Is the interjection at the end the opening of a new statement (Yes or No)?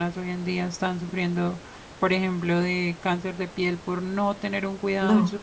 Yes